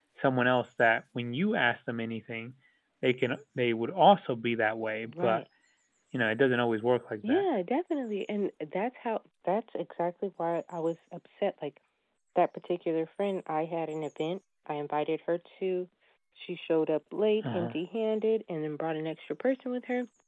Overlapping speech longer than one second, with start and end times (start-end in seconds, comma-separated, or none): none